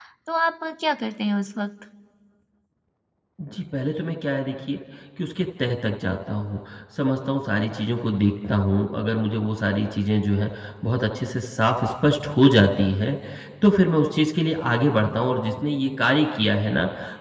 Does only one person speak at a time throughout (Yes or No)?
Yes